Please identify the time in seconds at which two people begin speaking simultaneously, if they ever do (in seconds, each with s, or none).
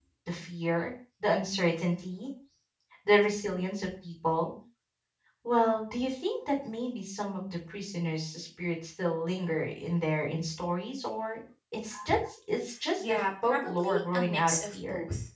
13.0 s